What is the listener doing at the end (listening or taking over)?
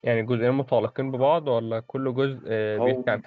taking over